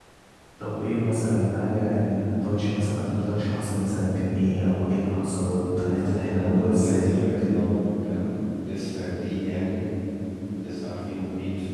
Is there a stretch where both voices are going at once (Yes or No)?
Yes